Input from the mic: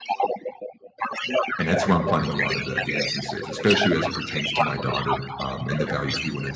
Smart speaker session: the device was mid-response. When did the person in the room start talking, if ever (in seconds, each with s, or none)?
1.6 s